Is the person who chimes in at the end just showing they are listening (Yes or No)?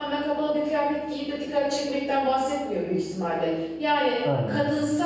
Yes